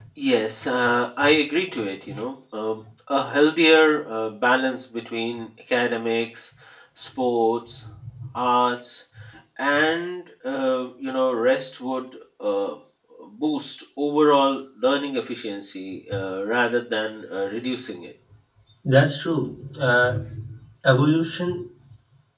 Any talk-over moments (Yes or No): No